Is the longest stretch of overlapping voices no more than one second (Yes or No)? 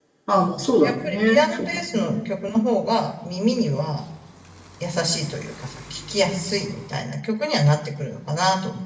No